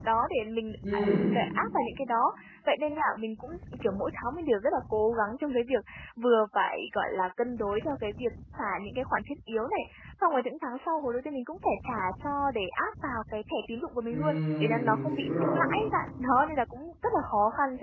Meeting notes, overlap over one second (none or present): present